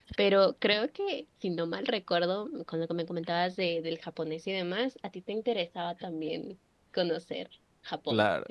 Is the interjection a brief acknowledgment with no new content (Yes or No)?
No